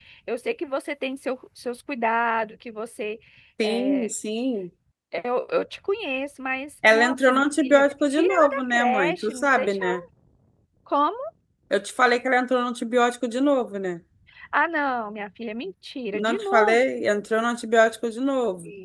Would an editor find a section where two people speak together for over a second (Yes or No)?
Yes